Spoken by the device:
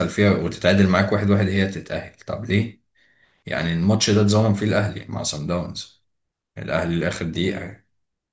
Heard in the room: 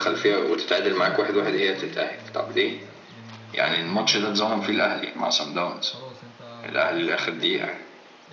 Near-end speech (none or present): present